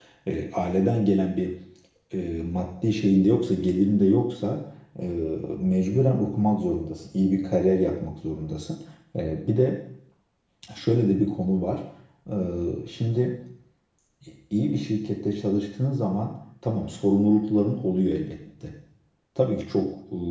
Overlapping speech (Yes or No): No